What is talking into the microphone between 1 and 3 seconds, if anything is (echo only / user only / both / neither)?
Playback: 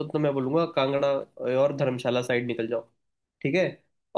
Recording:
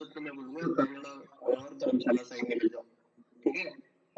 echo only